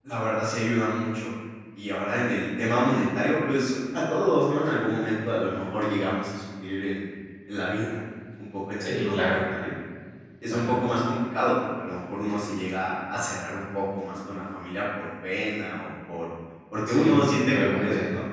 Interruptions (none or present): present